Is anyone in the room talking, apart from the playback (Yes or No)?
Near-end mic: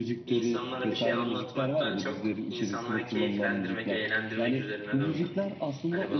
Yes